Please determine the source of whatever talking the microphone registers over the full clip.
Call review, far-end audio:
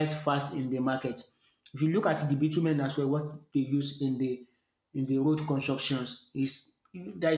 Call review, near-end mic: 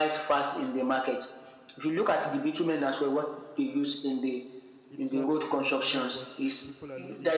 both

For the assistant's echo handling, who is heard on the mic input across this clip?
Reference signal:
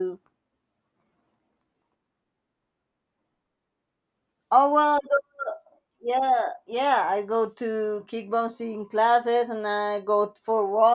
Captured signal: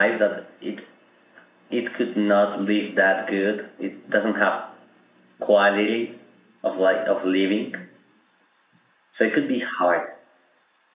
user only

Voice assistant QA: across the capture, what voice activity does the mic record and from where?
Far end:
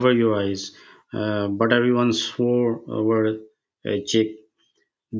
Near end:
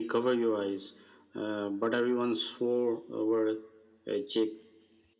echo only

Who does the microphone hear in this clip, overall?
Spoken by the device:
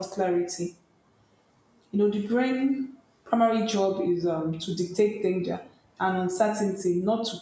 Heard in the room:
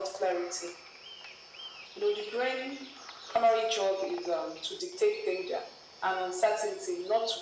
echo only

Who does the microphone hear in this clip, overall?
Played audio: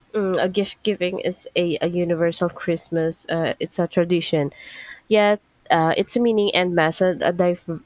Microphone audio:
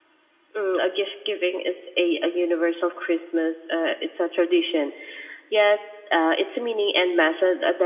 echo only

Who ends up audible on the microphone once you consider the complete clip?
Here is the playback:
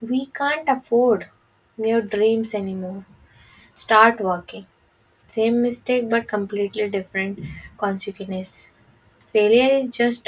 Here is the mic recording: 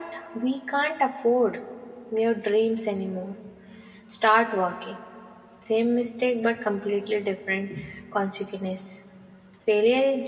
echo only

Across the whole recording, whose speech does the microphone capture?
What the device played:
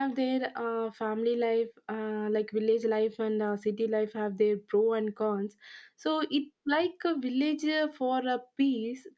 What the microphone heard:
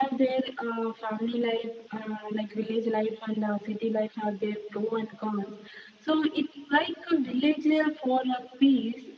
echo only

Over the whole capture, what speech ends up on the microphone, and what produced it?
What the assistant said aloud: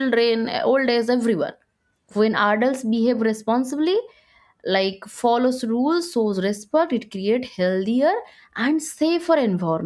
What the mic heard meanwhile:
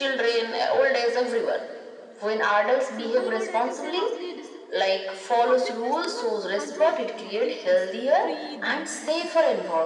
both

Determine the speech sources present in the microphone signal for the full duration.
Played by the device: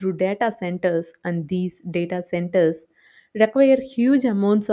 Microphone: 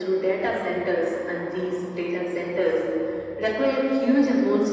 echo only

